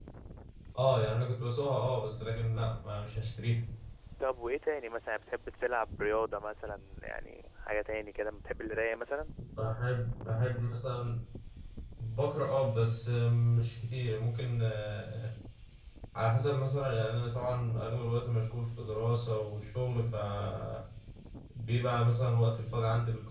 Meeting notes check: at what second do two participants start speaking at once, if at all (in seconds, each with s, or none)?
none